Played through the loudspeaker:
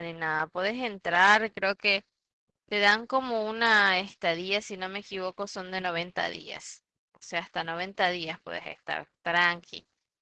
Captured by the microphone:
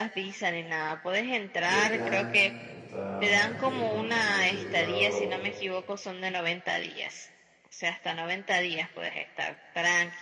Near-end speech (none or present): present